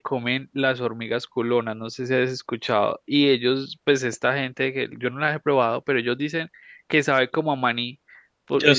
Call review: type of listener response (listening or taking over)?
listening